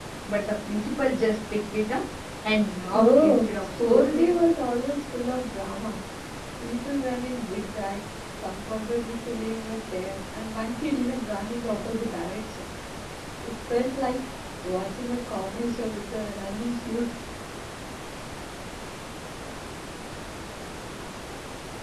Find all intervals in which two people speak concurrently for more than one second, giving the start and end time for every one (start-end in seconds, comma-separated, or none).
2.9-4.3